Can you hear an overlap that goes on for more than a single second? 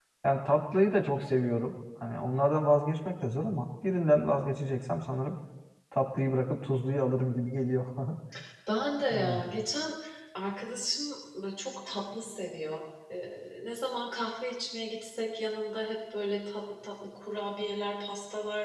No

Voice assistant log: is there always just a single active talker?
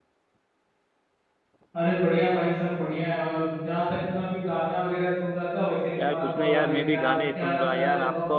No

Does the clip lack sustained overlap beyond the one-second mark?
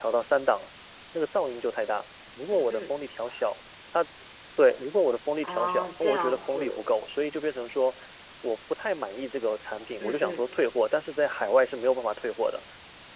No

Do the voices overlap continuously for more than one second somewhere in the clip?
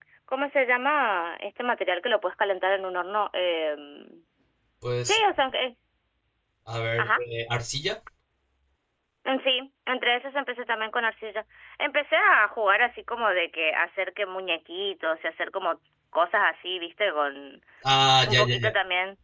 No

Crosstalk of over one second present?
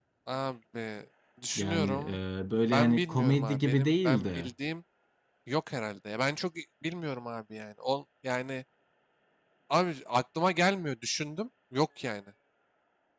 Yes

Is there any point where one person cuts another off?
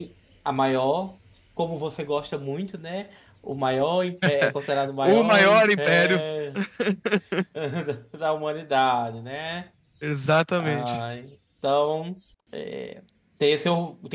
Yes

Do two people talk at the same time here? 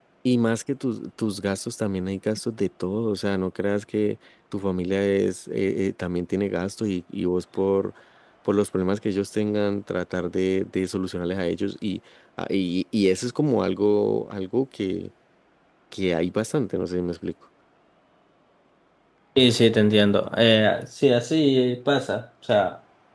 No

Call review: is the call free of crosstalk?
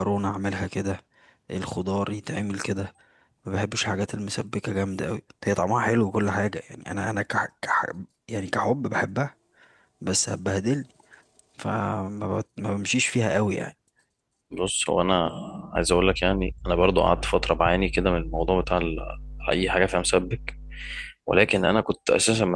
Yes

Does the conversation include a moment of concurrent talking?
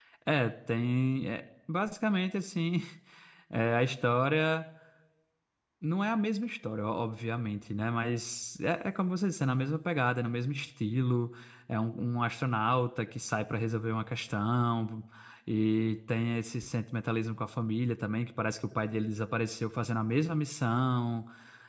No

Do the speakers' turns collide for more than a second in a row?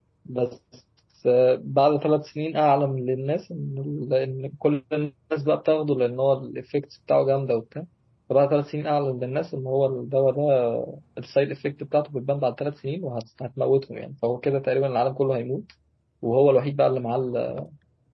No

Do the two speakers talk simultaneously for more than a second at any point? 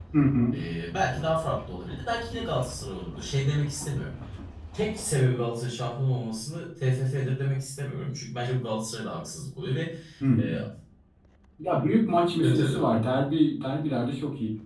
No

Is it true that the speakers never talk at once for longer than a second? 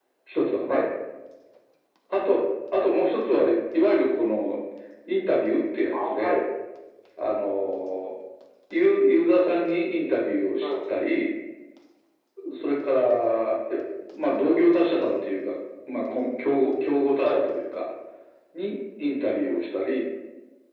Yes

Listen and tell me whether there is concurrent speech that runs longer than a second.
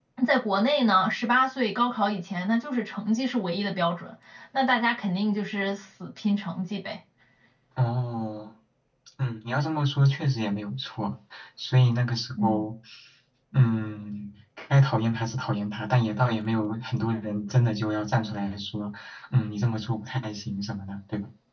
No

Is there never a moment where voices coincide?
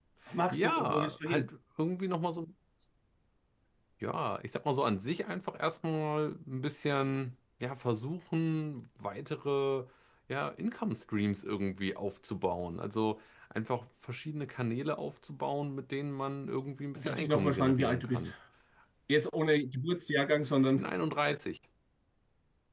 No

